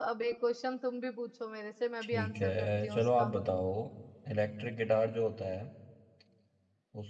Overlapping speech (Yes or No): Yes